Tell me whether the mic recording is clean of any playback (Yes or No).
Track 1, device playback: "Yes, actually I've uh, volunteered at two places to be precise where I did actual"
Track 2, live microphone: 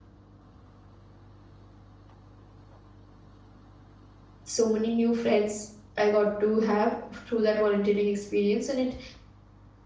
Yes